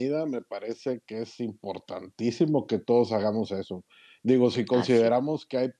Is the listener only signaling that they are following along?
Yes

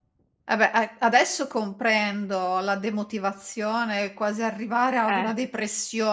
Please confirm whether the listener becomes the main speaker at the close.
No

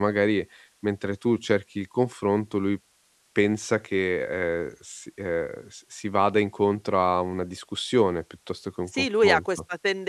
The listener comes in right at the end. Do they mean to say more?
Yes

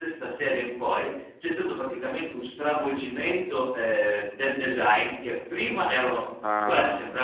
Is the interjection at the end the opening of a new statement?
No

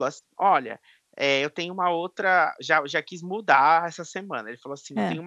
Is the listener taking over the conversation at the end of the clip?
No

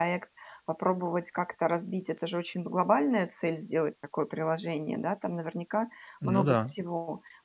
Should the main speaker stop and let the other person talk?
No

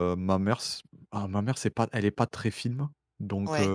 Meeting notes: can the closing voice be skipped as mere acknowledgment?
Yes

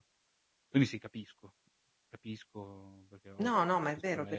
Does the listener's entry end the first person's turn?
Yes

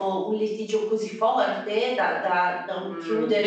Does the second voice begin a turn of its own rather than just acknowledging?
Yes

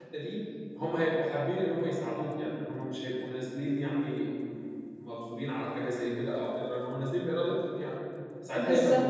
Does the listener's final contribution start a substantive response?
No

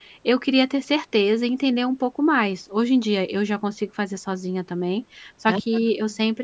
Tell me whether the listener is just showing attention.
Yes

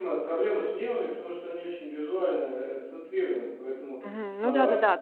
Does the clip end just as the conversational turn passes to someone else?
Yes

